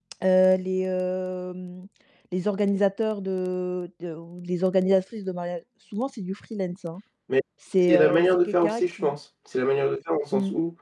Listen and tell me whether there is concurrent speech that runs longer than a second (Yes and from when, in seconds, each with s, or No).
Yes, from 7.9 s